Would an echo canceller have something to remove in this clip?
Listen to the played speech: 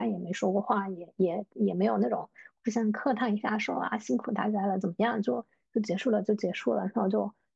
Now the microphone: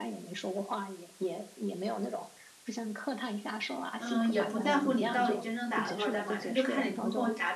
Yes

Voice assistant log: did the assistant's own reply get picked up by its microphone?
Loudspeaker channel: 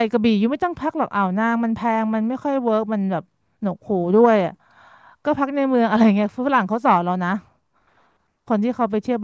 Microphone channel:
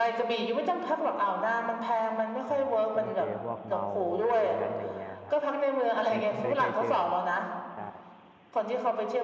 Yes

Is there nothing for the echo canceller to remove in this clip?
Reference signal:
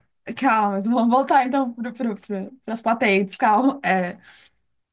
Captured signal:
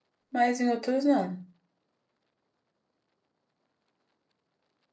Yes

